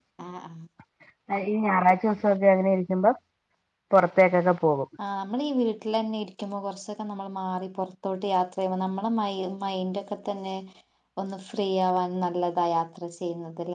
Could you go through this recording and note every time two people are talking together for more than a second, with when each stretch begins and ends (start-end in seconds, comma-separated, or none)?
none